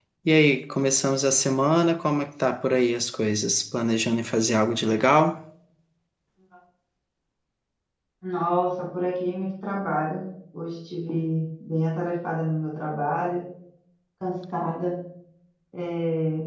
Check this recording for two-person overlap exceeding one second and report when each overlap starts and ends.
none

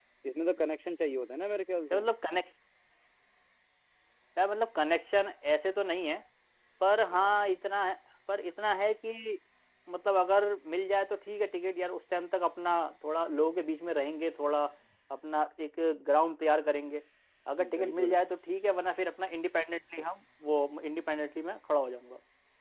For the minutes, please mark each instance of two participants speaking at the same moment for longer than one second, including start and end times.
none

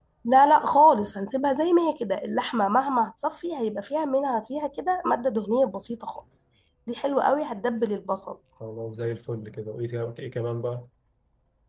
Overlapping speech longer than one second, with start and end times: none

